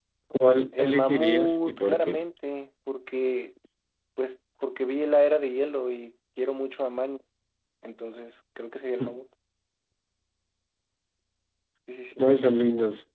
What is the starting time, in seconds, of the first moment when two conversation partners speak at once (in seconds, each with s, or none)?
0.8 s